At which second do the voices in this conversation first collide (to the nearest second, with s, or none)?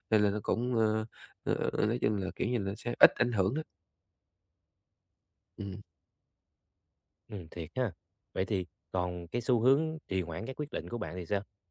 none